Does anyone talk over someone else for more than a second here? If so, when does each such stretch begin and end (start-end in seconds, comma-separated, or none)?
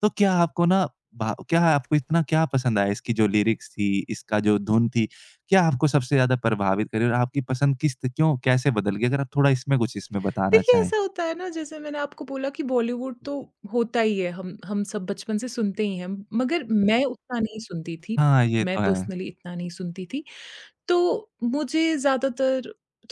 none